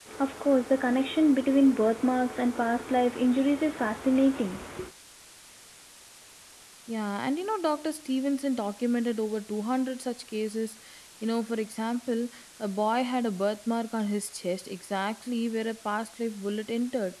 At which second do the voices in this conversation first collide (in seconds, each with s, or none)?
none